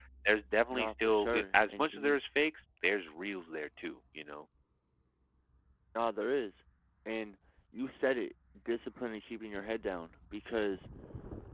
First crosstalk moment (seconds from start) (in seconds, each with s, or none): 0.7 s